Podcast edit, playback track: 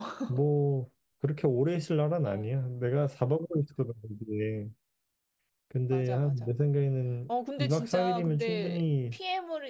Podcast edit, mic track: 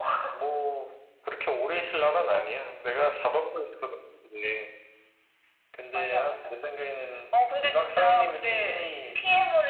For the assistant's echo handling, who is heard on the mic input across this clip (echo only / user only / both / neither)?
echo only